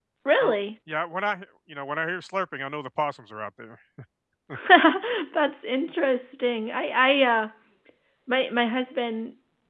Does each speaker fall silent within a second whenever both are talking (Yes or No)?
Yes